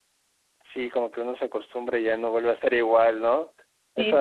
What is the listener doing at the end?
listening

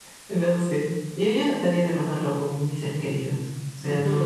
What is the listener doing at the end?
taking over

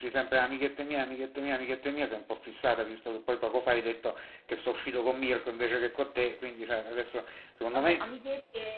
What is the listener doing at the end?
taking over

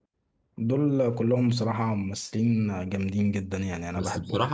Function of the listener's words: taking over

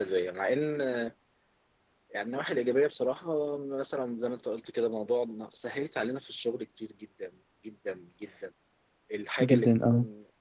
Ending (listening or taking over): listening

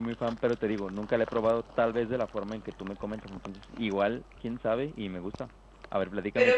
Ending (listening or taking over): taking over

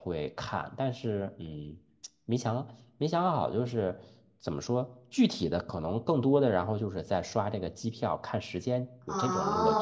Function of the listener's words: taking over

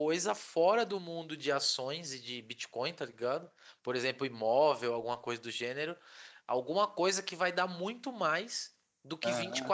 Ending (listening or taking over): listening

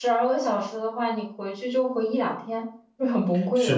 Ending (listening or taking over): taking over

